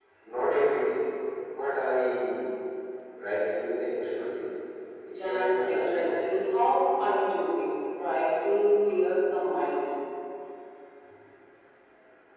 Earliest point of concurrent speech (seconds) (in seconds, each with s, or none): 5.2 s